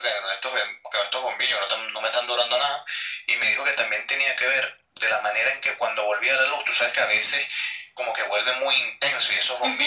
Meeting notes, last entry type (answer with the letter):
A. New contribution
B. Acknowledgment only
B